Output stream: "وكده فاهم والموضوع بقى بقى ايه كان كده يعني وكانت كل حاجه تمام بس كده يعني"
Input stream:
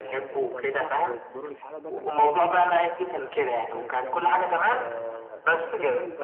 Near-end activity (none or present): present